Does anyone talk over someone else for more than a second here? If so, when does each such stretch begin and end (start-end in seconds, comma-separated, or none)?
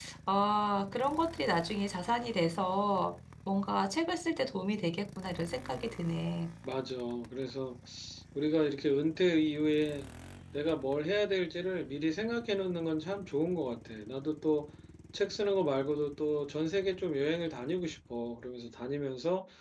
none